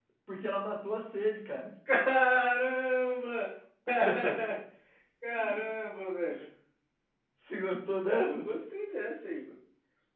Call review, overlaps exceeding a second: none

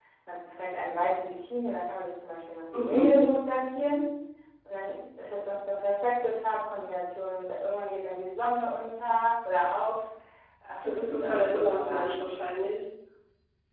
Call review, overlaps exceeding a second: present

